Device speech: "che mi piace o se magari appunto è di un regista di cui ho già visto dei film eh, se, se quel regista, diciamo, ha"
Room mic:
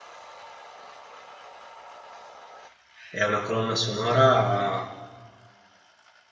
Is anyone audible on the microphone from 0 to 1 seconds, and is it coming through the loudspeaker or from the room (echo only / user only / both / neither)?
neither